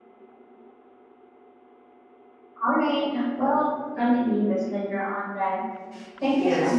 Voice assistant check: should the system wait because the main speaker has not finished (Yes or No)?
No